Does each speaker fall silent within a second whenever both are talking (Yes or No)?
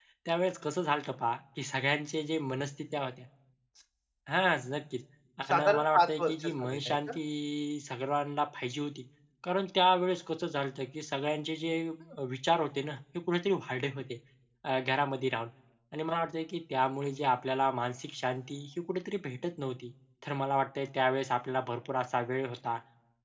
No